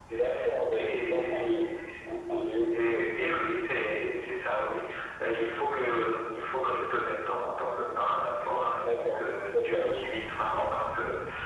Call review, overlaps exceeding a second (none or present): present